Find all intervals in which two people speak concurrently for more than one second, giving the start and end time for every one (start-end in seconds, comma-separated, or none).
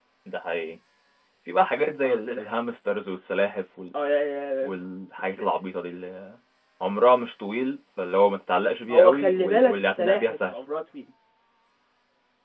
8.9-10.5